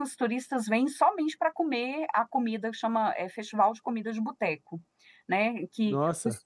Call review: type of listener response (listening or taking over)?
listening